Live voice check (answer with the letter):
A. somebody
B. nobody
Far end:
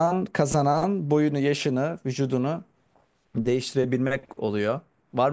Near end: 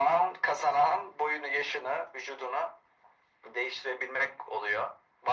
B